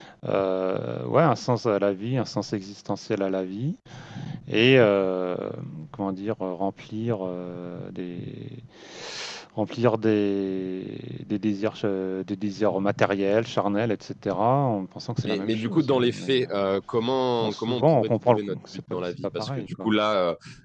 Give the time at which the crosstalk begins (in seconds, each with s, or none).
15.2 s